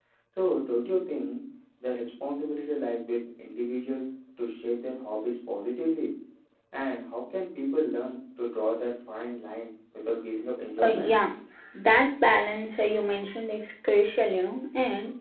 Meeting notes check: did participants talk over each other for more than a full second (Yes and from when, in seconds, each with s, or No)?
No